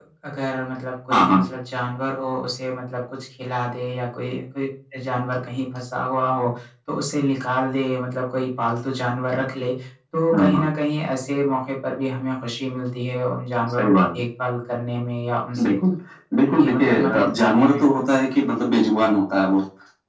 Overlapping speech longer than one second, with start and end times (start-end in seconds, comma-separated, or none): 16.4-17.8